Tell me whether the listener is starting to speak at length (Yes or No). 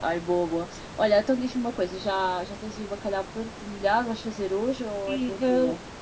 Yes